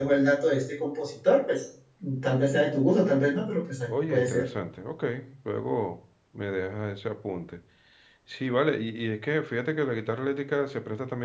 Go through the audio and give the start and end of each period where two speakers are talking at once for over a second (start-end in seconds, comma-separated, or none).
none